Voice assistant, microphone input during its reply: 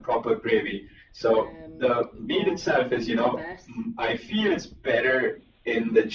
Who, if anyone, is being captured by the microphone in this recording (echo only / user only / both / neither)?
both